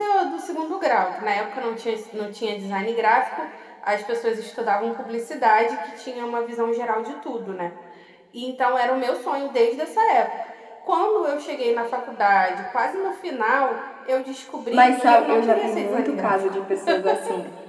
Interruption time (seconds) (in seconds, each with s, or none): 14.7 s